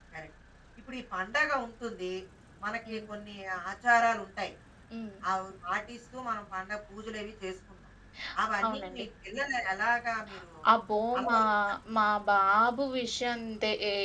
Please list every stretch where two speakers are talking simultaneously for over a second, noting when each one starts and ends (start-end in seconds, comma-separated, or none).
none